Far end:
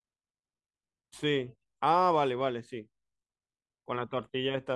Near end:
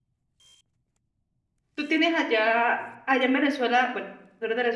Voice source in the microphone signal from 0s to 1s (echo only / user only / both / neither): neither